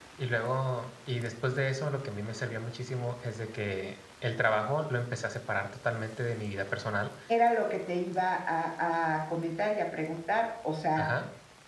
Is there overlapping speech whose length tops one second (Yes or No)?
No